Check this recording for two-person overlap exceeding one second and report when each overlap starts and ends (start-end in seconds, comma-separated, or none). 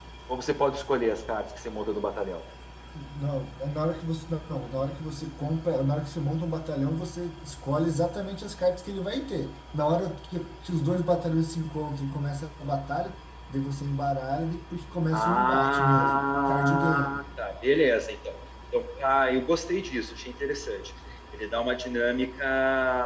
15.1-17.2